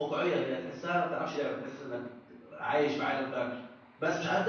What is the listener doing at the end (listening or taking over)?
listening